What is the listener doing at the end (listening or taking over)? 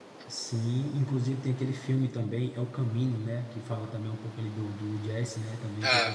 taking over